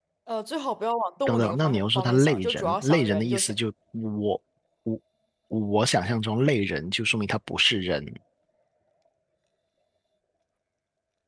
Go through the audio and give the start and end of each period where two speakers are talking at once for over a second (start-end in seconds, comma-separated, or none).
1.3-3.6